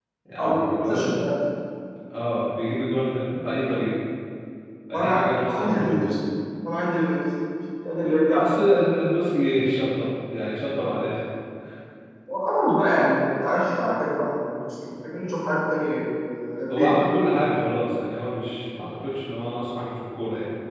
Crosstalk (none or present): present